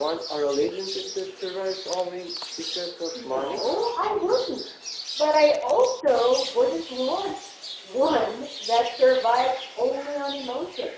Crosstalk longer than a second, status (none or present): none